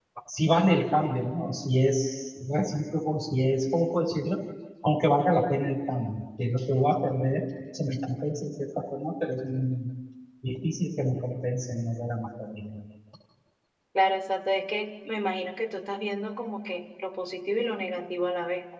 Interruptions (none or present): none